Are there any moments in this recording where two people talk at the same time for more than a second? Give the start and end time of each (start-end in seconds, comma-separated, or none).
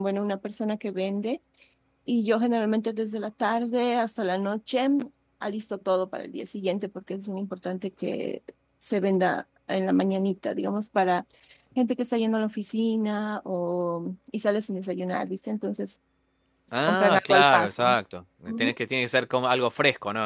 16.7-18.0